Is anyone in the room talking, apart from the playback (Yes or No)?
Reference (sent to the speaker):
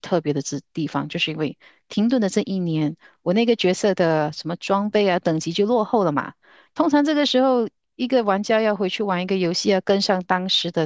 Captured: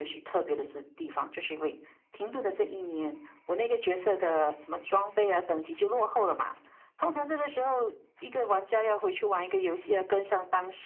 No